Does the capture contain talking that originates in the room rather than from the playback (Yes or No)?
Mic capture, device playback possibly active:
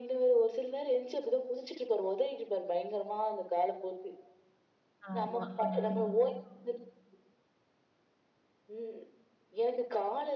Yes